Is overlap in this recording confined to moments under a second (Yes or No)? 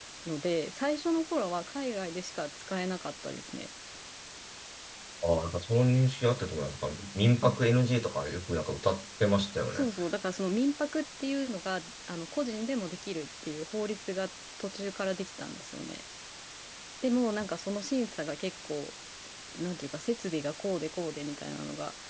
Yes